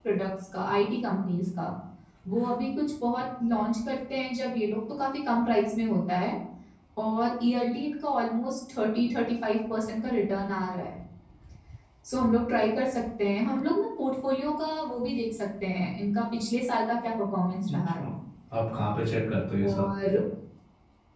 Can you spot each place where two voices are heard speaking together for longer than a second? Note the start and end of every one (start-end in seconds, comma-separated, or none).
none